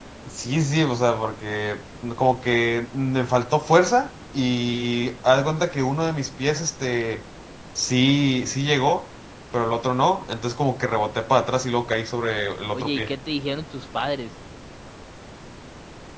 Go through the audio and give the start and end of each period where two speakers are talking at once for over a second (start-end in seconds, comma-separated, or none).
none